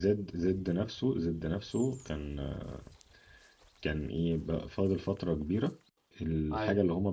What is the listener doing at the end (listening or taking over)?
listening